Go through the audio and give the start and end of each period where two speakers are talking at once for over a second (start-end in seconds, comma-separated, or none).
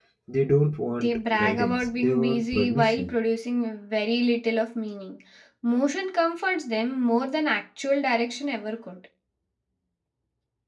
1.0-3.2